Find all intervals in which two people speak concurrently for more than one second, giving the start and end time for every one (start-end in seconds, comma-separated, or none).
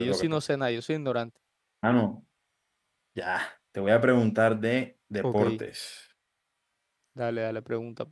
none